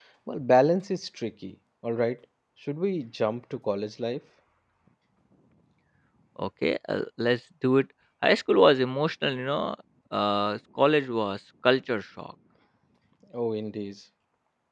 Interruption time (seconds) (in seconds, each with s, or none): none